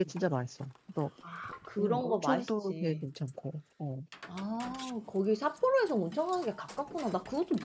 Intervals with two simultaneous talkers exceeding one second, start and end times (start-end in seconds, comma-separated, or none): 1.8-3.1